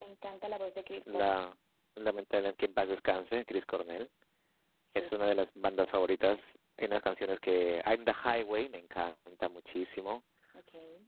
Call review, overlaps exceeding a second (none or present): none